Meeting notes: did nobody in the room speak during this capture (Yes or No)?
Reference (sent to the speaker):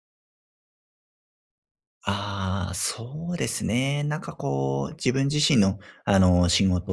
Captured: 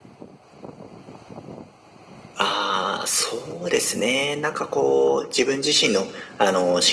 Yes